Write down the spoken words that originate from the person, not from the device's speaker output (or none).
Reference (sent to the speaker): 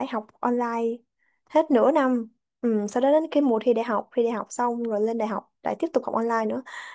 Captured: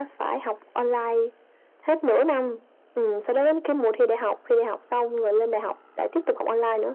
none